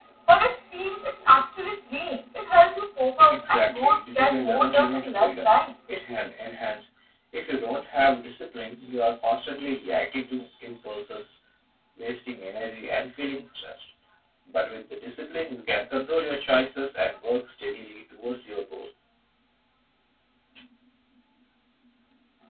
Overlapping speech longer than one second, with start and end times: 3.3-5.5

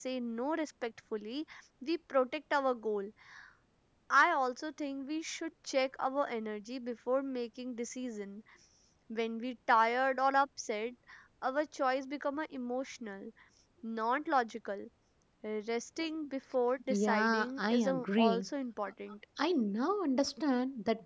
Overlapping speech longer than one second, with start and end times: 16.9-18.4

